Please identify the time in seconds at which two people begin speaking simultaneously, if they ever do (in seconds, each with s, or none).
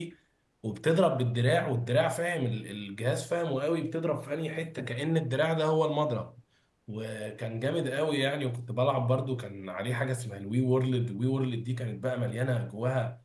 none